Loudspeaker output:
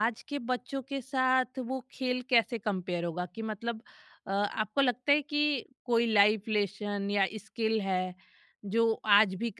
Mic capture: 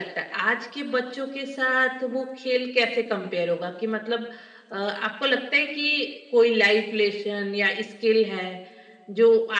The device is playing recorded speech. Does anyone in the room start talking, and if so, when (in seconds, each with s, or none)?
none